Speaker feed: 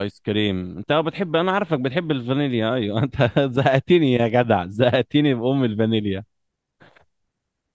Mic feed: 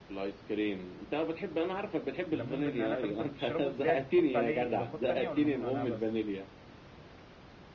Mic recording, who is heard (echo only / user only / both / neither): both